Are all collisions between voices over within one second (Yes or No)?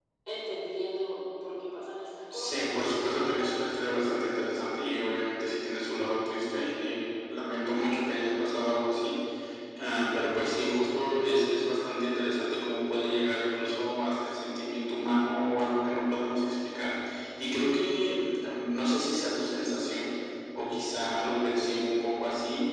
No